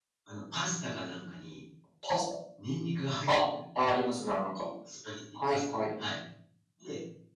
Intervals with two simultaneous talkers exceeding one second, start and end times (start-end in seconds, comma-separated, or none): none